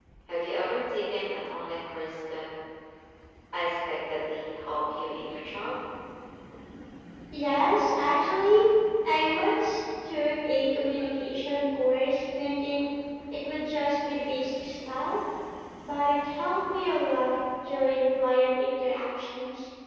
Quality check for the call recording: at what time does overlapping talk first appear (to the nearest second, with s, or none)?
none